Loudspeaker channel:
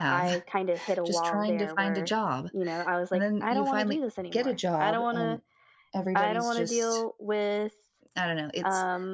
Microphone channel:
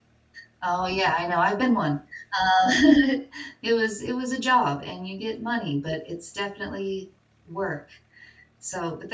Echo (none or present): none